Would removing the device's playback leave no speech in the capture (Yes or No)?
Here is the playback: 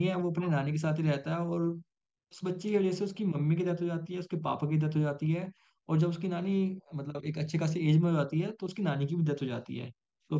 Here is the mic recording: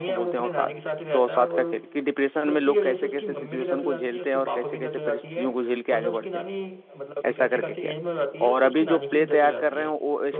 No